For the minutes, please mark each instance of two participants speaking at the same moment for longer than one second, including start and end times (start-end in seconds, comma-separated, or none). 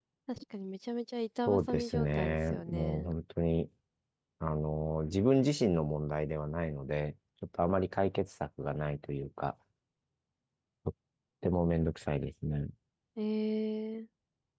1.5-3.1